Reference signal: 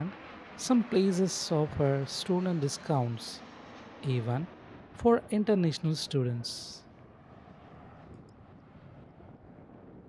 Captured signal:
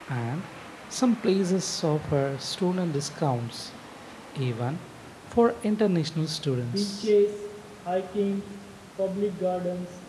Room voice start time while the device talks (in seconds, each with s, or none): 6.7 s